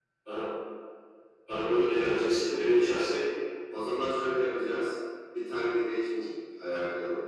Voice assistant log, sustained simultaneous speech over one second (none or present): none